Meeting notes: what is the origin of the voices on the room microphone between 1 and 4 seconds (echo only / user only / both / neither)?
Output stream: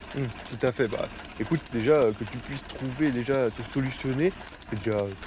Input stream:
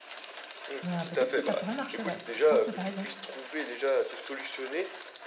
both